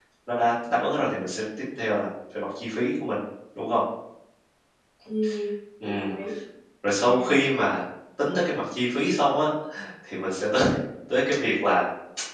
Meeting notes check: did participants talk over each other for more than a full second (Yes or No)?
No